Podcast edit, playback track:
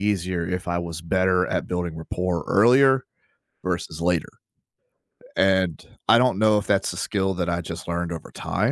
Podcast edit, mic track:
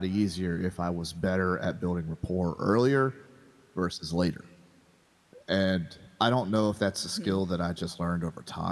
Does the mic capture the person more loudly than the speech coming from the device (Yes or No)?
No